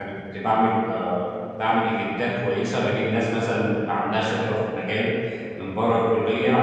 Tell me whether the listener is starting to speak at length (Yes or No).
No